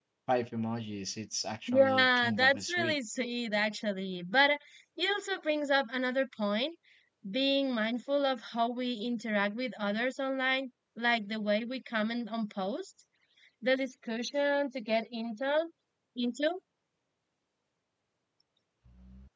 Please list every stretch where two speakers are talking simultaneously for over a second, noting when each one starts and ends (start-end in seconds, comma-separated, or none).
1.7-3.0